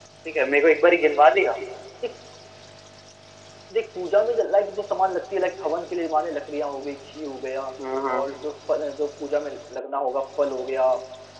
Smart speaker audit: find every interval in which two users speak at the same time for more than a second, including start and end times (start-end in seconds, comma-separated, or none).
none